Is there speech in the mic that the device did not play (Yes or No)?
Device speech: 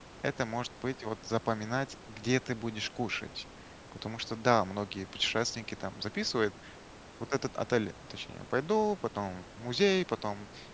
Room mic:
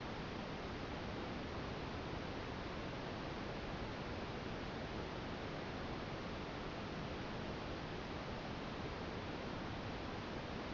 No